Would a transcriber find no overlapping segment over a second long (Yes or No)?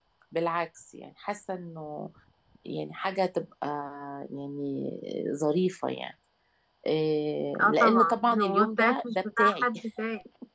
No